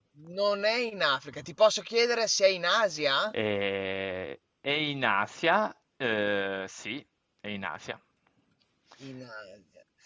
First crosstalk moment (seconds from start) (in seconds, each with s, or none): none